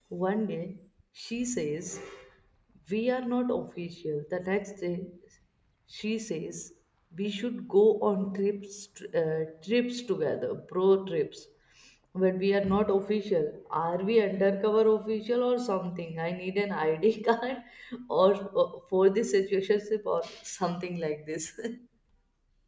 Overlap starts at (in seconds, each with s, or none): none